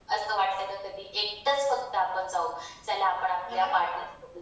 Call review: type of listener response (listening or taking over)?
listening